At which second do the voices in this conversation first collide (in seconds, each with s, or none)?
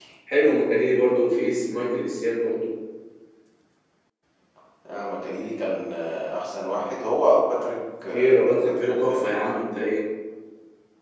8.0 s